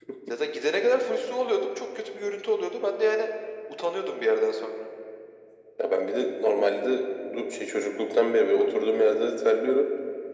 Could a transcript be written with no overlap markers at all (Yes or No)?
Yes